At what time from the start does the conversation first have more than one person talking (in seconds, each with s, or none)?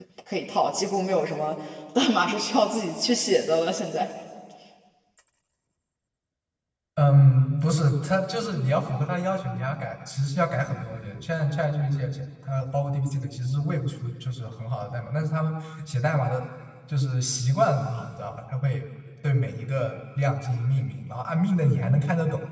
none